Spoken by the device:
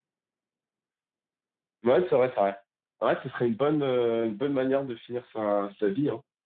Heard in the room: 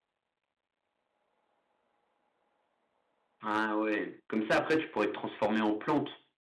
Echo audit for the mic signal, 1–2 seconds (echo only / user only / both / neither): neither